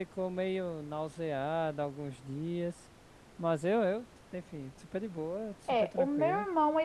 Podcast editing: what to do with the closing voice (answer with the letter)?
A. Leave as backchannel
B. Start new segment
B